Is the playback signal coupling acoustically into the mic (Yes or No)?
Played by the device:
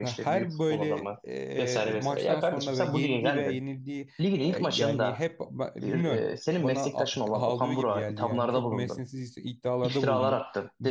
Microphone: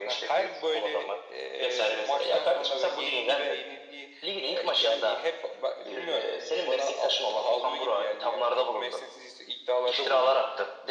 Yes